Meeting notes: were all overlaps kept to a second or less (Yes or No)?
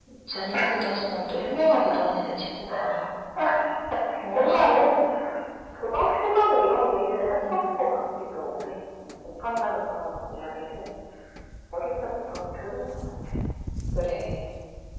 Yes